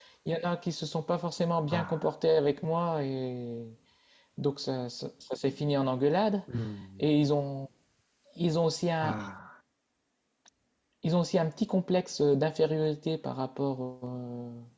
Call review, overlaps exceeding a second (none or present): none